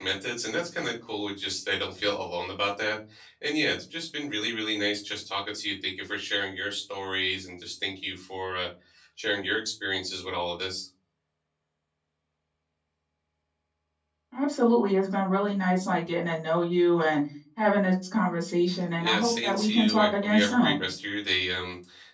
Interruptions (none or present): present